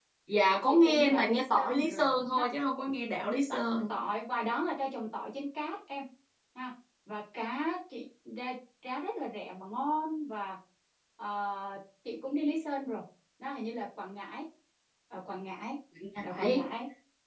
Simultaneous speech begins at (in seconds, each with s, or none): 0.7 s